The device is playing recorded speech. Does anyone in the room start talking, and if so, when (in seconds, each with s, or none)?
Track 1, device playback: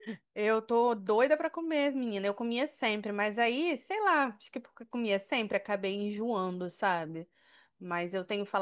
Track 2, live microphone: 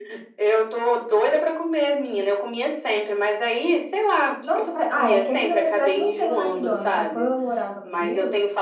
4.4 s